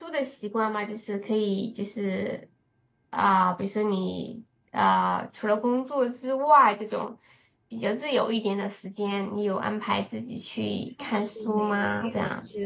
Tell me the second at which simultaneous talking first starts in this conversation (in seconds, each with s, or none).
11.0 s